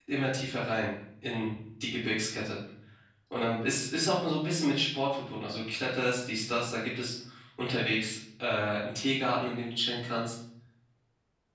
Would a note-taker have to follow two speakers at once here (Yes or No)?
No